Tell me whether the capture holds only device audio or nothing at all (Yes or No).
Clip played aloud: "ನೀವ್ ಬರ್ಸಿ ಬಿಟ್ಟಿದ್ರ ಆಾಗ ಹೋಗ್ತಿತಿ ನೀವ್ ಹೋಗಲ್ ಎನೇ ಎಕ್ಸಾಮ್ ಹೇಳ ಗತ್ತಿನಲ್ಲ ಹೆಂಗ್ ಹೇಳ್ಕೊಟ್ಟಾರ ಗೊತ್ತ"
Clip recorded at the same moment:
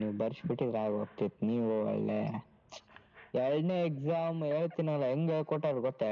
Yes